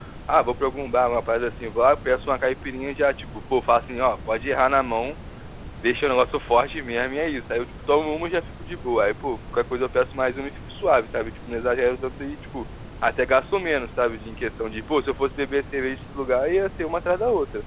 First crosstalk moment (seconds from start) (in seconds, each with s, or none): none